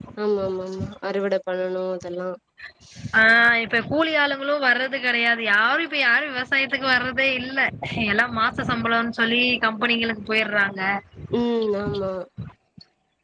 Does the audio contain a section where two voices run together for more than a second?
No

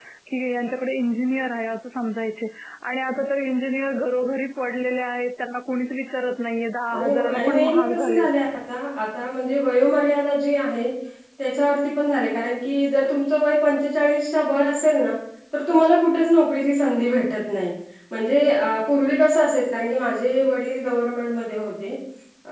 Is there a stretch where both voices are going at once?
Yes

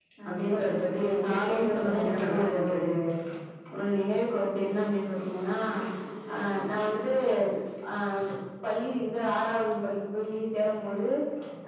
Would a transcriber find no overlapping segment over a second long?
No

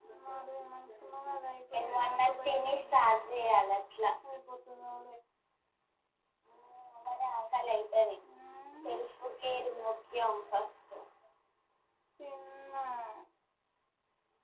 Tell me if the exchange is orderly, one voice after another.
No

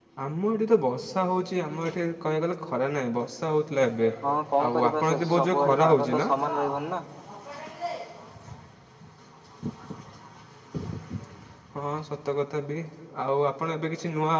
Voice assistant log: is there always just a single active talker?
No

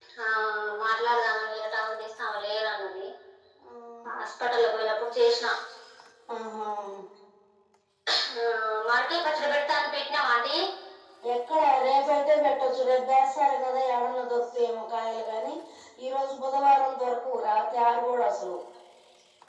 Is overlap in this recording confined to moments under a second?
Yes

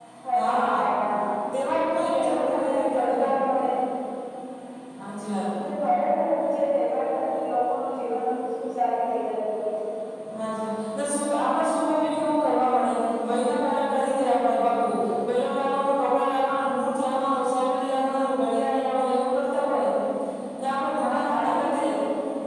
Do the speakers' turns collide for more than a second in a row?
Yes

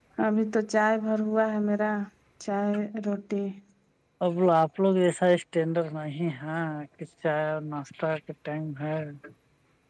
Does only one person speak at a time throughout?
Yes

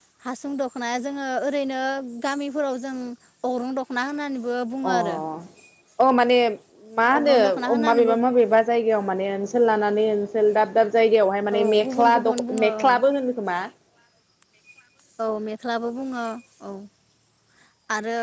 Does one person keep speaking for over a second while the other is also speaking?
Yes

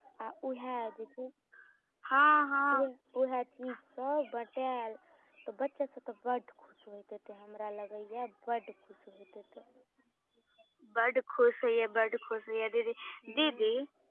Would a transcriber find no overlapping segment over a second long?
Yes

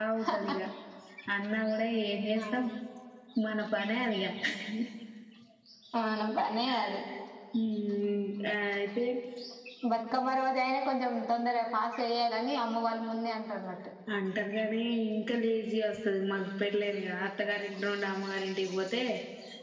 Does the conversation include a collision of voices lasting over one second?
No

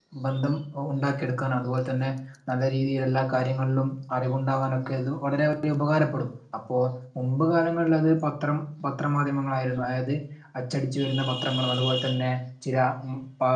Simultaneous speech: No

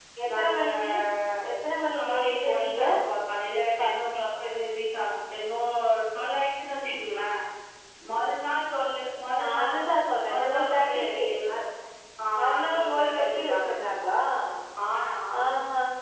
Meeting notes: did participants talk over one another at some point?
Yes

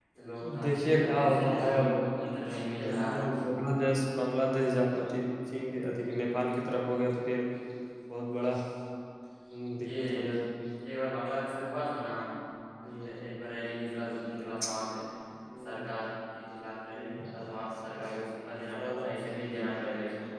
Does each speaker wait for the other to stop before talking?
No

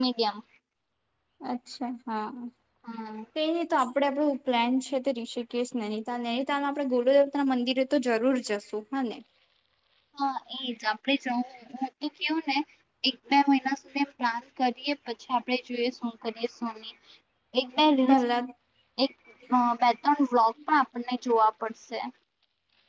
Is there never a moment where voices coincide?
Yes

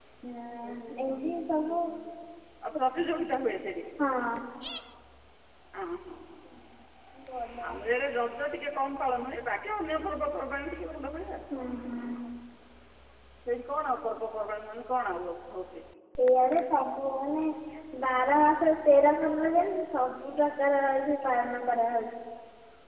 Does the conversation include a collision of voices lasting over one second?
No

